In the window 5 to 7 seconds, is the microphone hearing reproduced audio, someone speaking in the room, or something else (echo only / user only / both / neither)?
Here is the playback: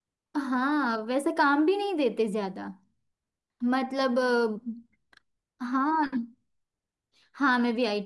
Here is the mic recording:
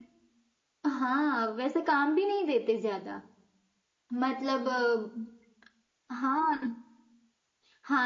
echo only